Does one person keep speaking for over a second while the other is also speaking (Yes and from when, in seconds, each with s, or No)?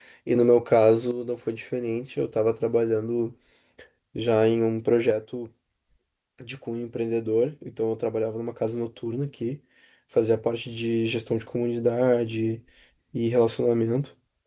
No